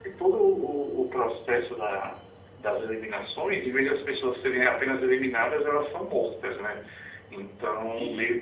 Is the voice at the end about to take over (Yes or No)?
No